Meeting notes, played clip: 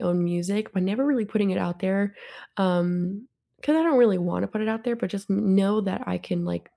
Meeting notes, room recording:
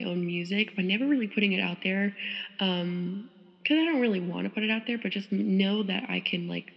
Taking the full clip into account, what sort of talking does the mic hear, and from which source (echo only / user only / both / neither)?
echo only